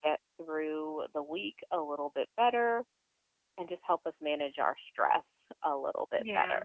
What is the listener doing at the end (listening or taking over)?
taking over